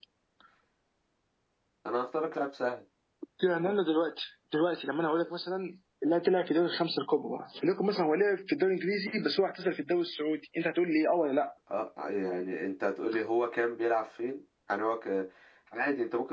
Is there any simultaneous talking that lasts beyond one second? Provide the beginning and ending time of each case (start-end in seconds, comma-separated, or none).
none